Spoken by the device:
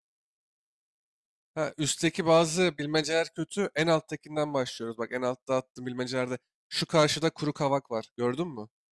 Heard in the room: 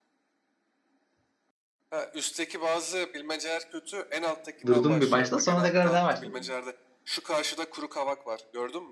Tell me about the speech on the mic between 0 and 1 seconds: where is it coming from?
neither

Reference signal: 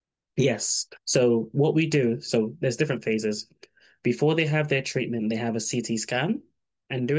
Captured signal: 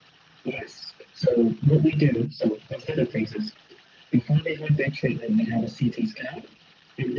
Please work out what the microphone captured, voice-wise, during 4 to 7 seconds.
echo only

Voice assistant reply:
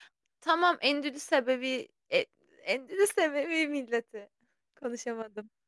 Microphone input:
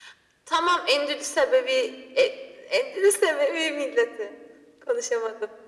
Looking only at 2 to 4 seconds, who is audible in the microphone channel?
echo only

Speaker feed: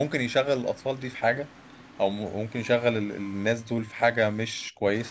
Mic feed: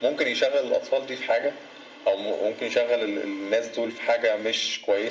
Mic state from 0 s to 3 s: echo only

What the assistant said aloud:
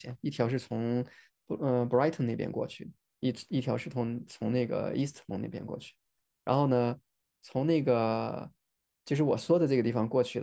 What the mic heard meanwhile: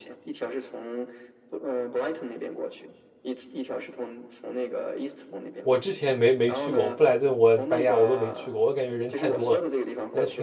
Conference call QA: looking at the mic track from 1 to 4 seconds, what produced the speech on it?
echo only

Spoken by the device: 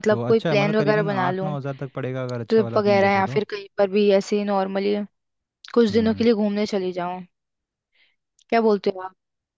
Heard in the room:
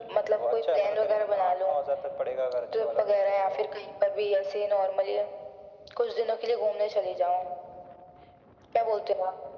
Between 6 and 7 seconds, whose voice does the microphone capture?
echo only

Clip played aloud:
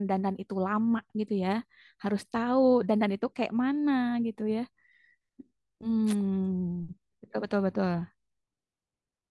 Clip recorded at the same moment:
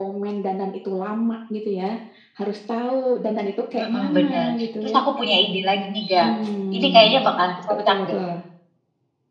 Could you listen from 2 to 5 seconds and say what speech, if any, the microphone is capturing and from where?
both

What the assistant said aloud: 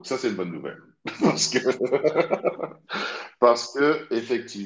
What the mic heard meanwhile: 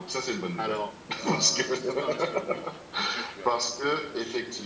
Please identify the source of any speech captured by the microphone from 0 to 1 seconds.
both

